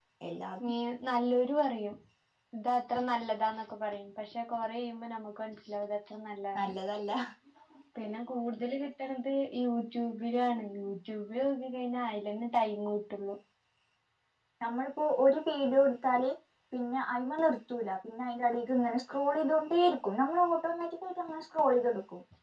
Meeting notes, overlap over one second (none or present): none